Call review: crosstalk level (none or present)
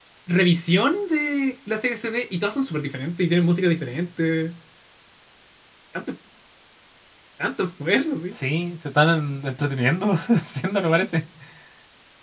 none